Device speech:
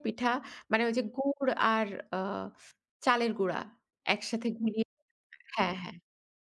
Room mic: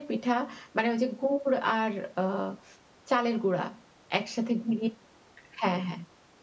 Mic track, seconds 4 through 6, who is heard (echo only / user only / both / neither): echo only